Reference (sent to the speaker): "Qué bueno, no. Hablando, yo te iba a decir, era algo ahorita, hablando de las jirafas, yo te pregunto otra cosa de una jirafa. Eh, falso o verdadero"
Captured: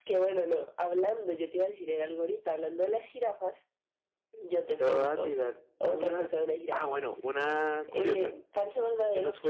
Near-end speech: present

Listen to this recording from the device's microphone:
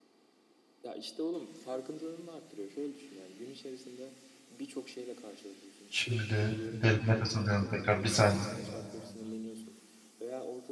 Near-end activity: present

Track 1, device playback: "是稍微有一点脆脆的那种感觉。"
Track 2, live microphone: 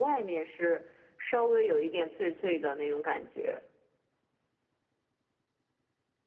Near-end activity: none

